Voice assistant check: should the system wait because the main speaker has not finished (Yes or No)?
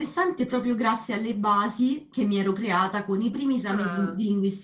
Yes